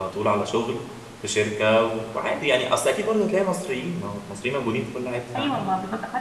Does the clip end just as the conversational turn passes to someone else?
Yes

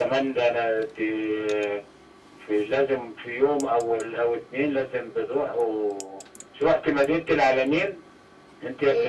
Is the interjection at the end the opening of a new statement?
Yes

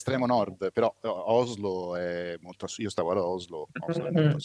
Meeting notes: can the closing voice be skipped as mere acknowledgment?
Yes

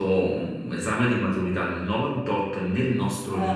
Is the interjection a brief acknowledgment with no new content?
Yes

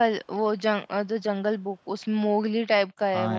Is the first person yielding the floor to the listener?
Yes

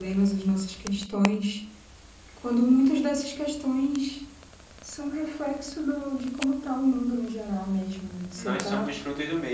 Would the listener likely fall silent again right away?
No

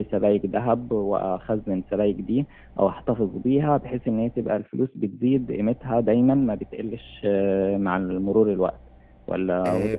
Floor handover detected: Yes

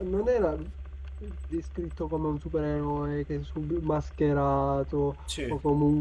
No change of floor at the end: Yes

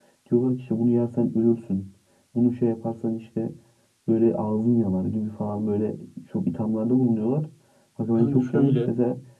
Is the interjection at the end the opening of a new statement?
No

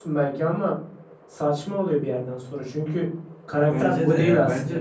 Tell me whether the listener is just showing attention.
No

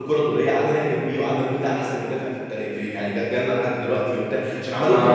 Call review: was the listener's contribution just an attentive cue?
Yes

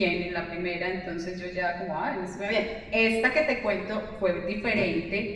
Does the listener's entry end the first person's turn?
No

